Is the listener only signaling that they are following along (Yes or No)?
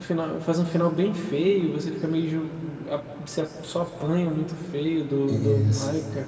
No